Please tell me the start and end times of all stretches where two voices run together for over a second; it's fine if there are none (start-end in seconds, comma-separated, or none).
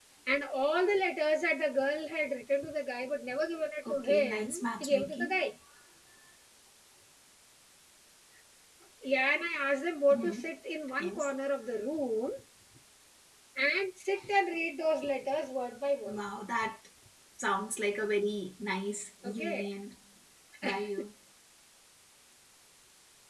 3.9-5.4